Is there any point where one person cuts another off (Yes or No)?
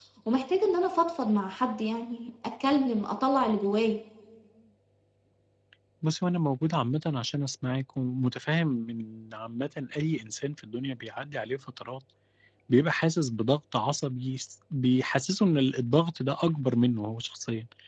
No